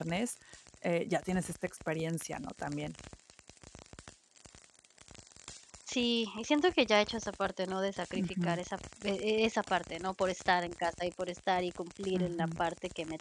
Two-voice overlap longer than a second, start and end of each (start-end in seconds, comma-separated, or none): none